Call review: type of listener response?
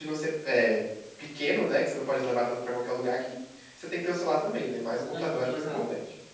taking over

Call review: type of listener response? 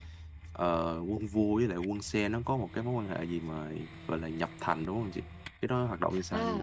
taking over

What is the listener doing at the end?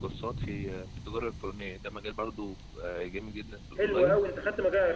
taking over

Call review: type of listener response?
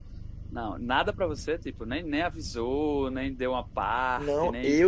taking over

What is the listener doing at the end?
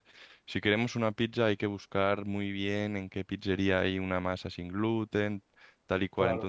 listening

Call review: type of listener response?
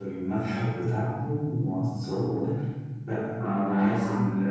listening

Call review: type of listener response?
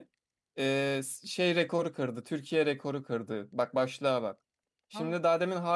listening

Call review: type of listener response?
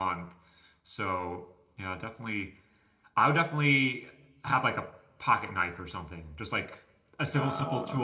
listening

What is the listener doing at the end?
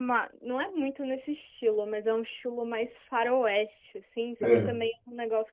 listening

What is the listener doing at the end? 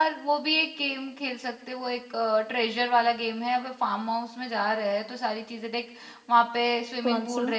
listening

